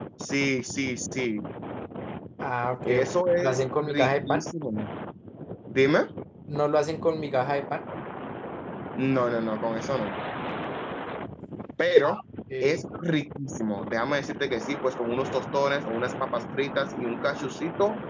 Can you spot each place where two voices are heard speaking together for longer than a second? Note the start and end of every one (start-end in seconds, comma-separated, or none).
2.8-4.5